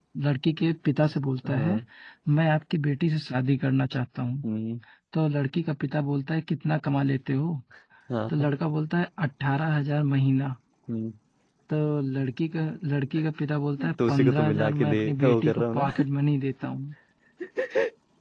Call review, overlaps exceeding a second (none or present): present